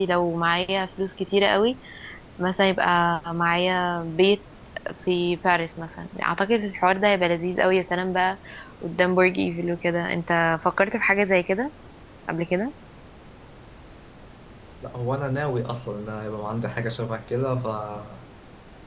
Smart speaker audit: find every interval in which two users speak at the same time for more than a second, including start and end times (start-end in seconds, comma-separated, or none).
none